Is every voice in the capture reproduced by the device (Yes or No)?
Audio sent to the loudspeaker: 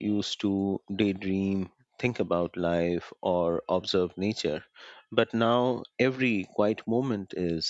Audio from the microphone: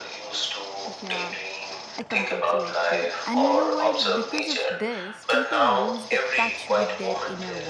No